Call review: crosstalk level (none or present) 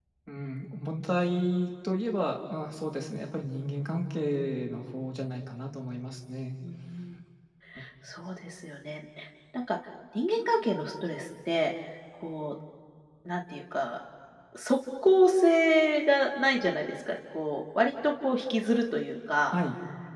none